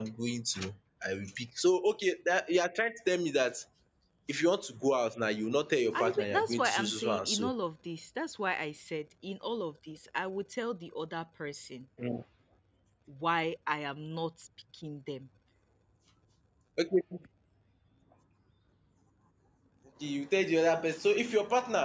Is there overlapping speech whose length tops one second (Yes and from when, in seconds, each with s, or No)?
Yes, from 5.9 s